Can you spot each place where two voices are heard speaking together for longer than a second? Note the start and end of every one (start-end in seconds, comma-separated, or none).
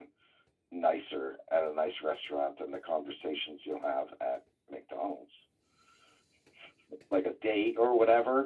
none